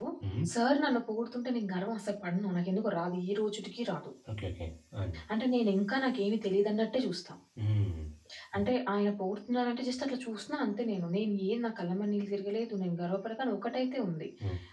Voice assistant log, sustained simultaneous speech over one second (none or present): none